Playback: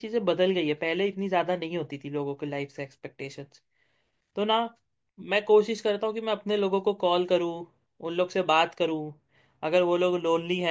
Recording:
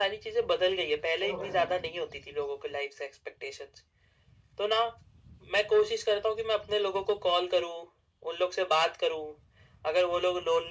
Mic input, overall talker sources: both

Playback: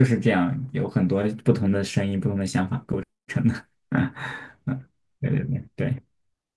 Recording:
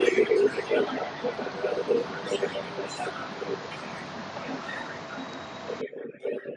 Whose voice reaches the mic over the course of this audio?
echo only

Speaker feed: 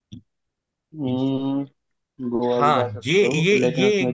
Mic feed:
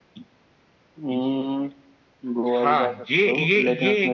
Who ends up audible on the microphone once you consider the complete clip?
echo only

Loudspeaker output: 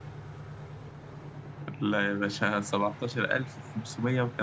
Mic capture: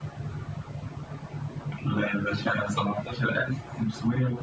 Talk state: echo only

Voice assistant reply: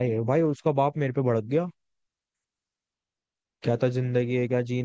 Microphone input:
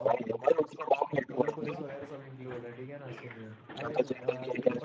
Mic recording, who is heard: both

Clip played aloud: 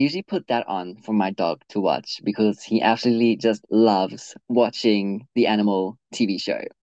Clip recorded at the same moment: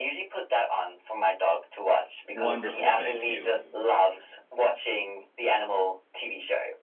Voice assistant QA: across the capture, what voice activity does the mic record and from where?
both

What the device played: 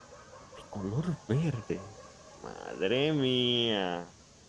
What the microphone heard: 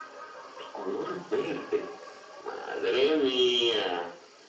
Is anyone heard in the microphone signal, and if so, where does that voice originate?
echo only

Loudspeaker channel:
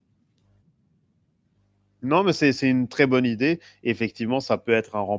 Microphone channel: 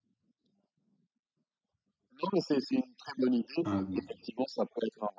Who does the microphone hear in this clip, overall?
both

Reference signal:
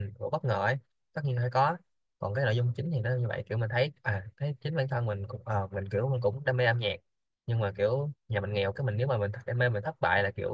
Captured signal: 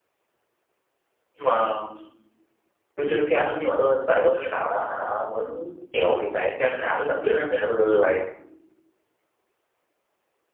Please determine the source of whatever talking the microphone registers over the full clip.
user only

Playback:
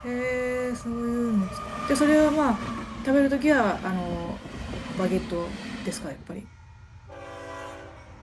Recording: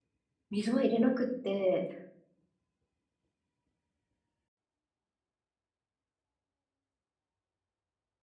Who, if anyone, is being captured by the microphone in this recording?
user only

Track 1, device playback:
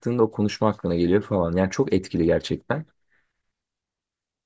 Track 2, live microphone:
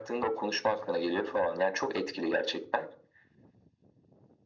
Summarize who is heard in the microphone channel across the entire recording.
echo only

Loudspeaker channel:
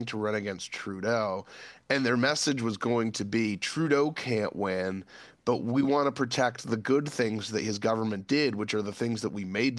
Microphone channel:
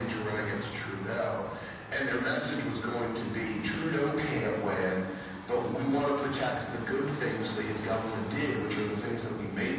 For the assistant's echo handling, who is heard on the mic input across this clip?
echo only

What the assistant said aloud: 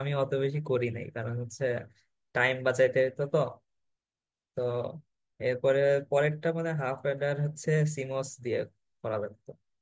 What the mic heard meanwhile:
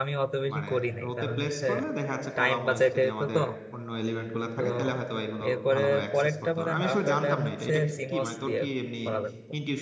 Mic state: both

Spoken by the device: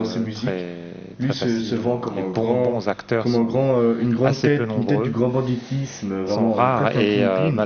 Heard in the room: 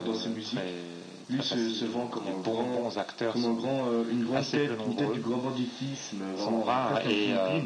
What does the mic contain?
echo only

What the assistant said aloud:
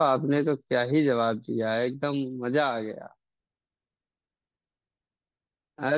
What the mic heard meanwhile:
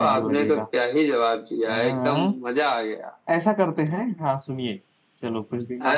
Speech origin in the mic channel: both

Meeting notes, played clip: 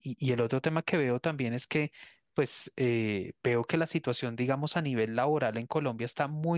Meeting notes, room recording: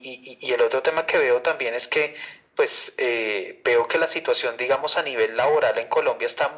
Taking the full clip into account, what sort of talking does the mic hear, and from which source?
echo only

